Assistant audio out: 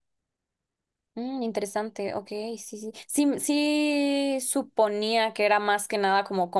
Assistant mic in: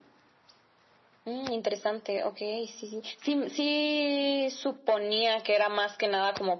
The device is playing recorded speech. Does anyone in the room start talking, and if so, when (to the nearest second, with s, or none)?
none